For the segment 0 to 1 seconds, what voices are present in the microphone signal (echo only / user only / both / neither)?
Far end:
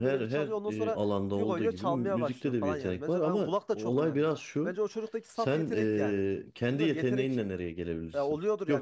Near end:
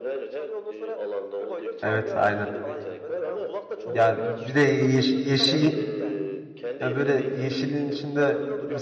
echo only